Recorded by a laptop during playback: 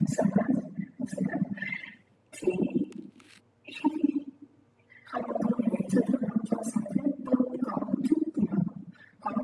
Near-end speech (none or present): none